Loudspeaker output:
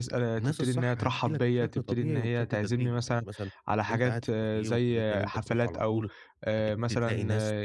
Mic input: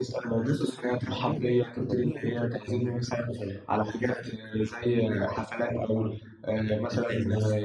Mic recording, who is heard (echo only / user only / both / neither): echo only